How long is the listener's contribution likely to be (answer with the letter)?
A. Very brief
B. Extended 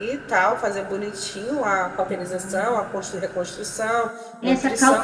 B